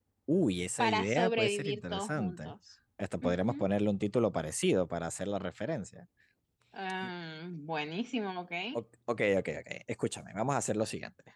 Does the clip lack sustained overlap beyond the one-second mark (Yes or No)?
No